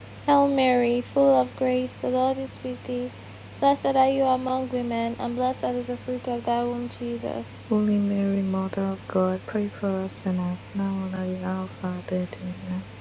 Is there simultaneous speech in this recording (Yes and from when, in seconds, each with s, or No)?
No